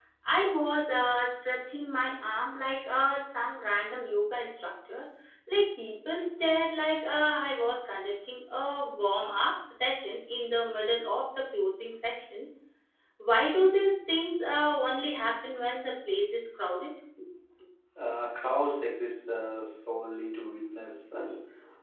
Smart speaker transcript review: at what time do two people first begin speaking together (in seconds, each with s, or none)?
none